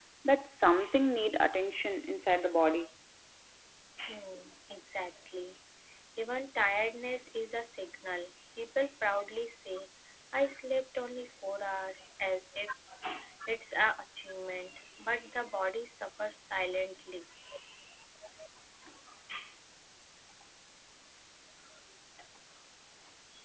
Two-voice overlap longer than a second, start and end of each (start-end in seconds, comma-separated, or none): none